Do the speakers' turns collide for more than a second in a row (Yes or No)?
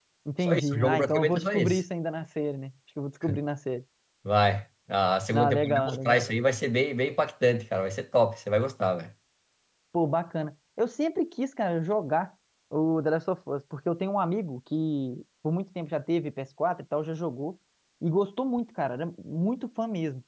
Yes